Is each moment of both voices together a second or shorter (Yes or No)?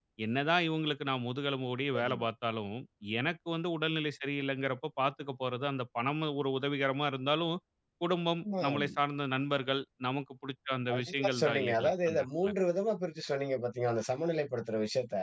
No